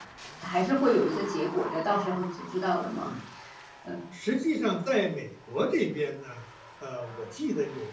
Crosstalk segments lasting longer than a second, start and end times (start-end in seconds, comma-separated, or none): none